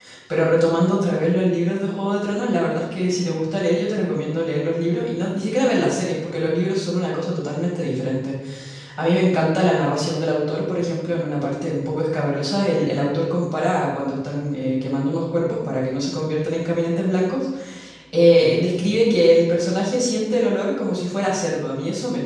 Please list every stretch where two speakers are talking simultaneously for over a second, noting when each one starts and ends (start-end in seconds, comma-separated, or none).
none